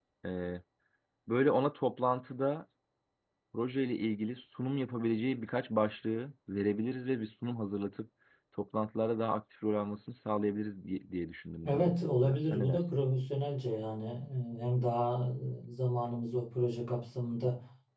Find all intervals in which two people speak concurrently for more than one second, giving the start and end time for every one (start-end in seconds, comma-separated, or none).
11.7-13.0